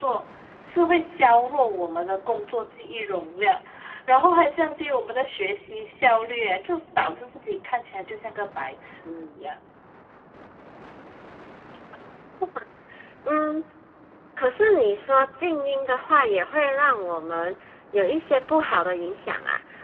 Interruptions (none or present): none